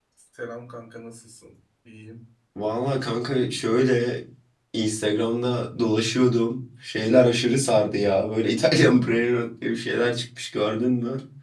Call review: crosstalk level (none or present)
none